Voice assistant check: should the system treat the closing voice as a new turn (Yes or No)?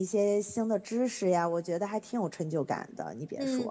Yes